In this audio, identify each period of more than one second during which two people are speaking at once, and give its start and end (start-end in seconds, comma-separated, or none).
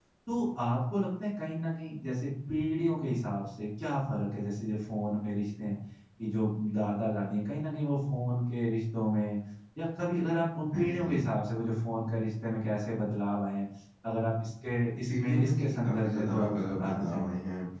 15.1-17.3